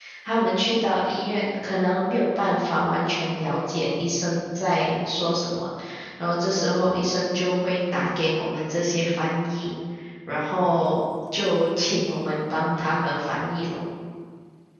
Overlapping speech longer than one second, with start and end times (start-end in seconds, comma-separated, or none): none